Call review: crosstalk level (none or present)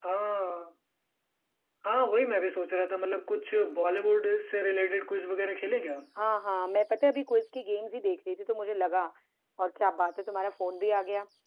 none